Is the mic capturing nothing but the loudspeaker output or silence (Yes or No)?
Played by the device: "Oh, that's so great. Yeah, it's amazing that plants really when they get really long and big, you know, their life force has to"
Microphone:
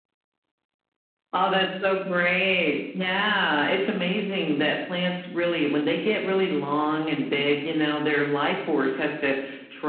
Yes